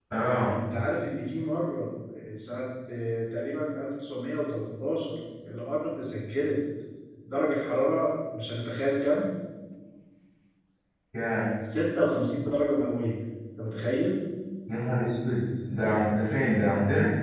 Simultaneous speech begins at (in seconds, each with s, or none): none